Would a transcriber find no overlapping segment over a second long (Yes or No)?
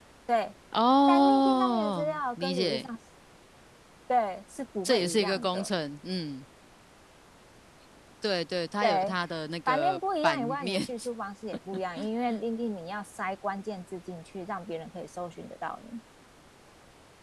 No